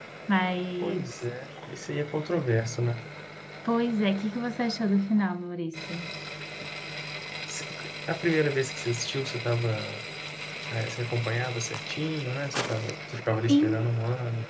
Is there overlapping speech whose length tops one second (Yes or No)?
No